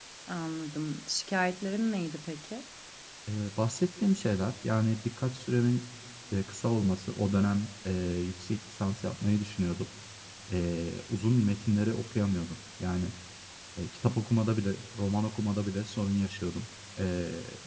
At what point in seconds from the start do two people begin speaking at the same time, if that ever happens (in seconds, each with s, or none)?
none